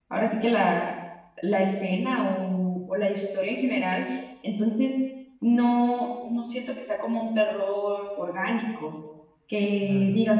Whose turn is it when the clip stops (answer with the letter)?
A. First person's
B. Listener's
A